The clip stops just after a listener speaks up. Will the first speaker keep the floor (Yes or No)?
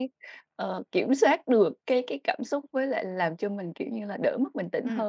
No